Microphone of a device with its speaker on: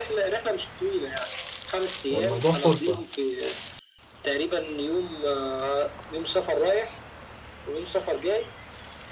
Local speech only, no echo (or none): والموضوع فرصة